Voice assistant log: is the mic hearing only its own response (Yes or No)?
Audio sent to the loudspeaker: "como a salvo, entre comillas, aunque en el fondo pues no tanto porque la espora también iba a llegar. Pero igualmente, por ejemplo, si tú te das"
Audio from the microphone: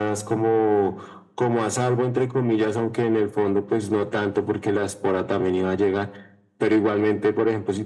Yes